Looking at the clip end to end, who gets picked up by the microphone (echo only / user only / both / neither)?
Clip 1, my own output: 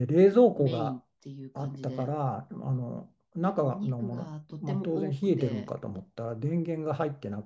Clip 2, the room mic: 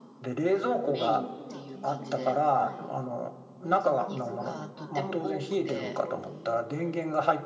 both